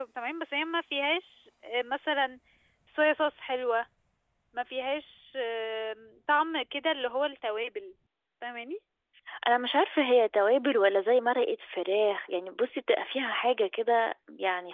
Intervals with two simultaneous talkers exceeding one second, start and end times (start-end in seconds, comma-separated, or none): none